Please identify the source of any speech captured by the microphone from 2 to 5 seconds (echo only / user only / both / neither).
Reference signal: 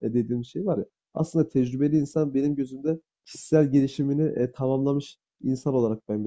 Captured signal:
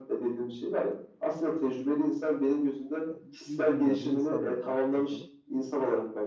both